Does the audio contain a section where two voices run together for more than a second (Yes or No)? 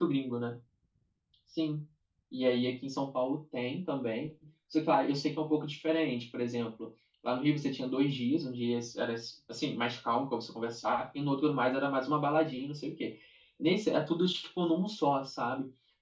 No